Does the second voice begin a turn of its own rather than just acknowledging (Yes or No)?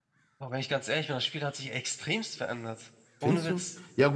Yes